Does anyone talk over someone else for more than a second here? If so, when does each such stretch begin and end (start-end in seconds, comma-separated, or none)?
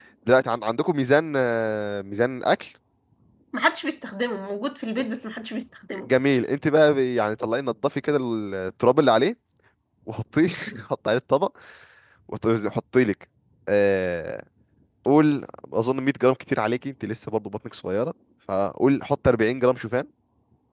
none